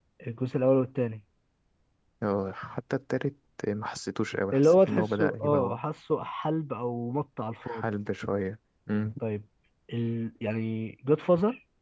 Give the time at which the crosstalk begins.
4.5 s

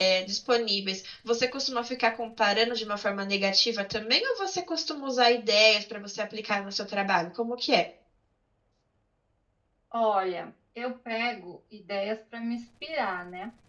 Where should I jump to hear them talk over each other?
none

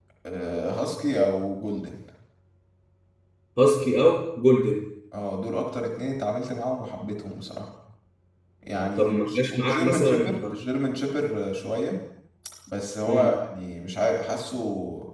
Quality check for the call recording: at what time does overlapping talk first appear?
9.0 s

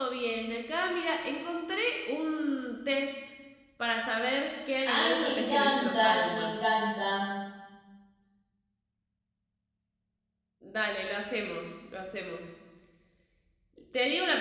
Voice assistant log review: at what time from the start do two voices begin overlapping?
4.8 s

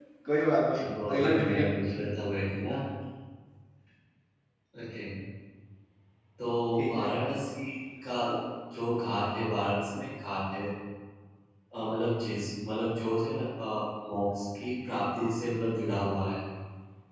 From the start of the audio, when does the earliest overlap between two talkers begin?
0.7 s

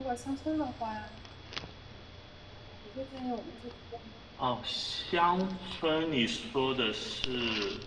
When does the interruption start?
none

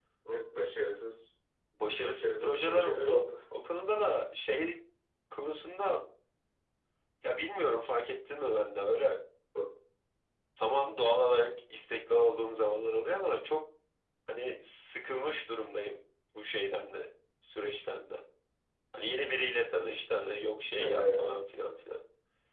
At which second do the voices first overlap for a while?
1.9 s

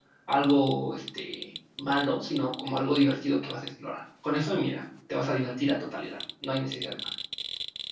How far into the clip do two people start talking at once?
none

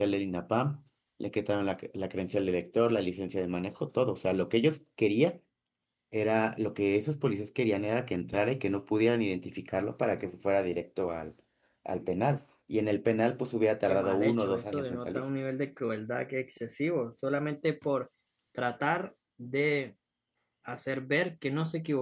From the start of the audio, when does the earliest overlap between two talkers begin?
13.8 s

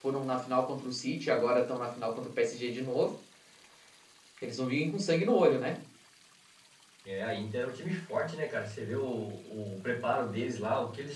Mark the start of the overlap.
none

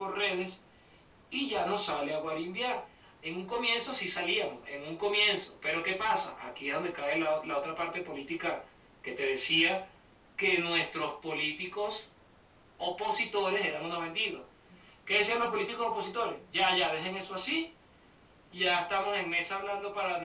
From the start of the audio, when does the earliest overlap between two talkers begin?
none

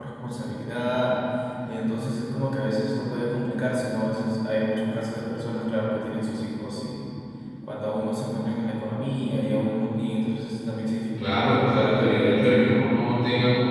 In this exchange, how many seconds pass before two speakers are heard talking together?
11.2 s

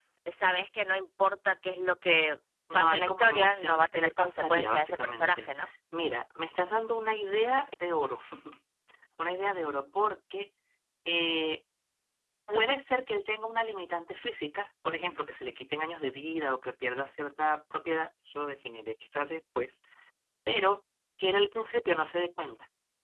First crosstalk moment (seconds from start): 2.7 s

